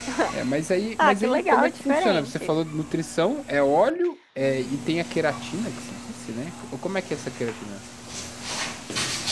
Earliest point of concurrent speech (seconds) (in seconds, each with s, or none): 1.0 s